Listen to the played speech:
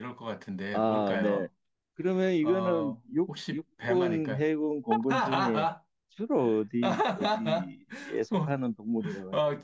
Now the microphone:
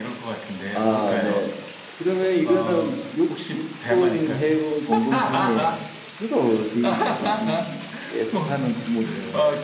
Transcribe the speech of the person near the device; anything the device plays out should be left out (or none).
none